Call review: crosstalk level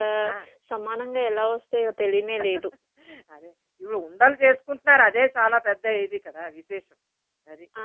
none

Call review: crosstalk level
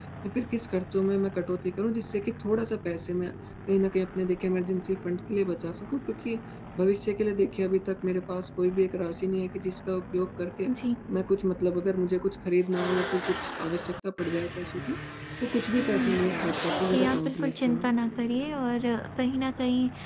present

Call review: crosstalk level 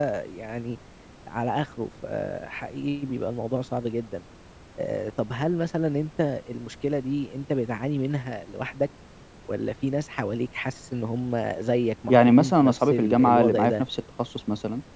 present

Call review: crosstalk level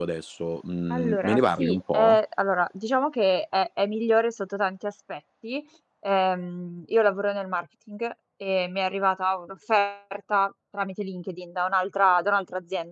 present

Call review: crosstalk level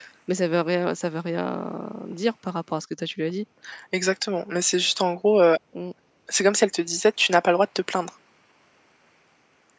none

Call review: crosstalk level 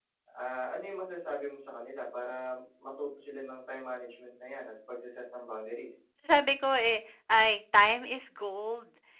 none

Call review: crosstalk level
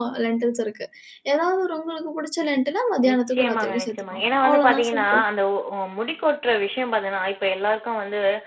present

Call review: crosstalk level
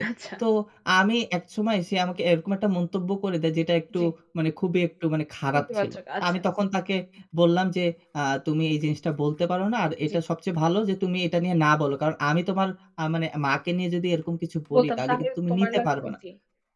present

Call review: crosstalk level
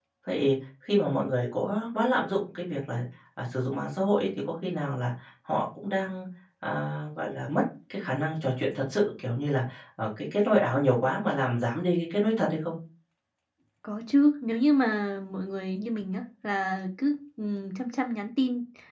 none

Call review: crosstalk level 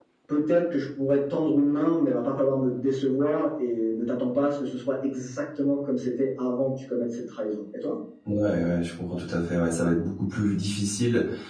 none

